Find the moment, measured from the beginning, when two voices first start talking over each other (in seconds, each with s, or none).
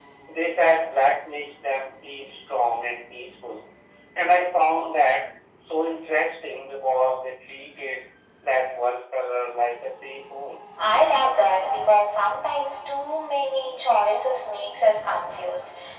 none